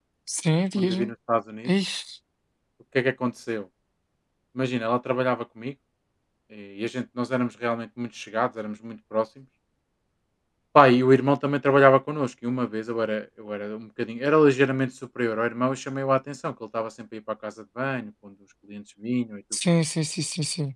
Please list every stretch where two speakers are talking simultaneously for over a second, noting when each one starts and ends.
none

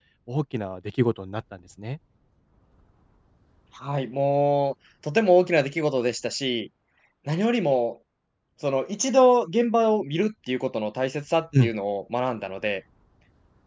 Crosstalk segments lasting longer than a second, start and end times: none

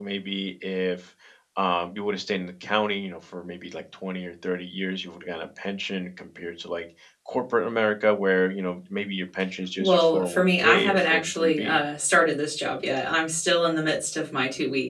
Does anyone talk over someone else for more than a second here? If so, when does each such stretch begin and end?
9.8-11.8

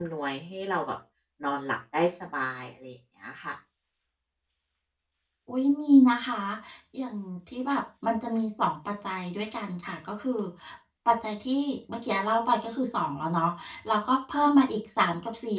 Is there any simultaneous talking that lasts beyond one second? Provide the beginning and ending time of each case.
none

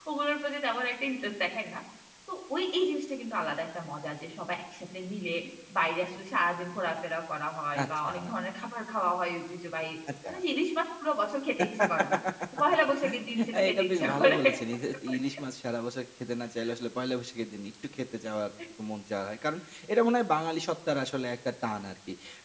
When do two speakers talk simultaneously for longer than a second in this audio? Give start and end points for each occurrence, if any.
13.0-14.4

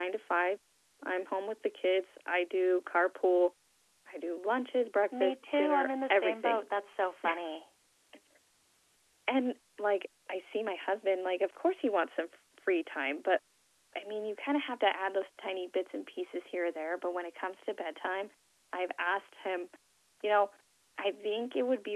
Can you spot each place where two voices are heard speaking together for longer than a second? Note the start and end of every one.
5.2-6.7

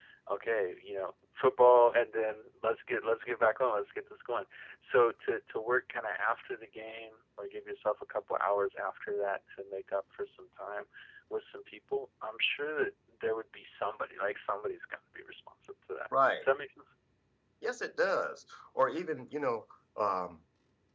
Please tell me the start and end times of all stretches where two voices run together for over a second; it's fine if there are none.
none

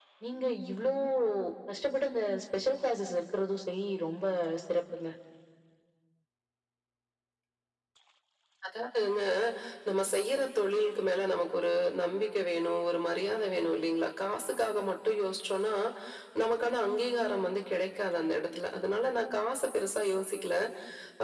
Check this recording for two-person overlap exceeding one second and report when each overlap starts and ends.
none

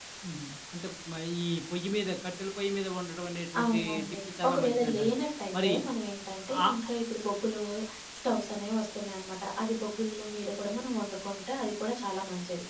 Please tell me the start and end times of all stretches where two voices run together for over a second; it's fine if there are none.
3.6-5.1

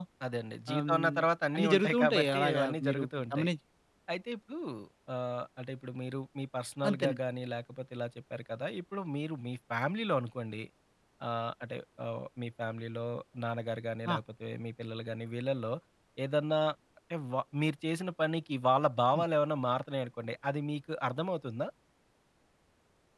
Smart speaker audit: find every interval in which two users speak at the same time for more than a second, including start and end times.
1.5-3.5

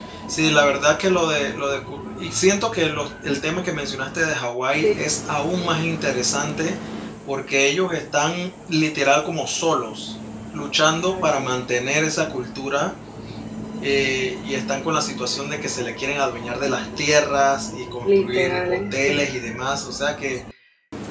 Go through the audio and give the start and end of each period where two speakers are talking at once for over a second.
18.0-19.3

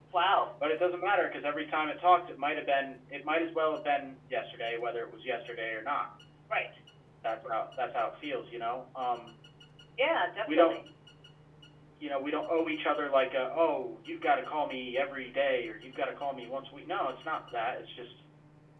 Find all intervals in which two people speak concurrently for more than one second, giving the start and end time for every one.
none

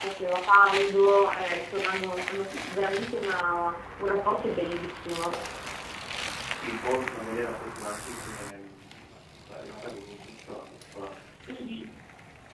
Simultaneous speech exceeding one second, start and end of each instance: none

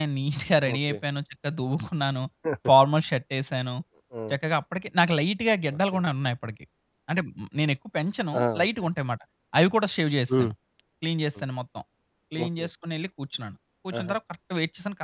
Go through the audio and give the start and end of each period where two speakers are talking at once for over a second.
none

